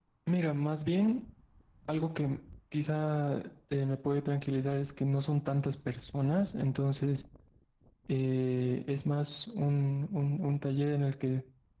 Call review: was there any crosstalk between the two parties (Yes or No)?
No